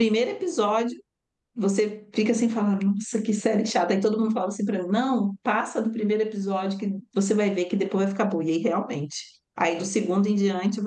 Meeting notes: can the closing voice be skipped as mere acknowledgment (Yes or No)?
Yes